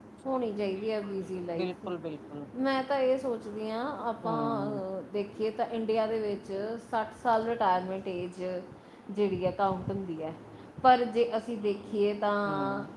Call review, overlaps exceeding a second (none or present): none